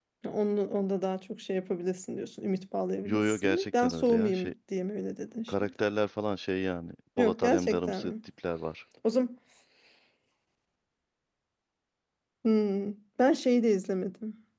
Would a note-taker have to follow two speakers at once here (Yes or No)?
Yes